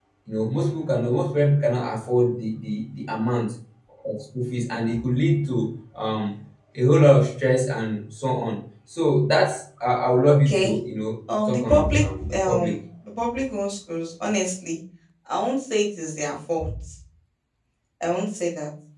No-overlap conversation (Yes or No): No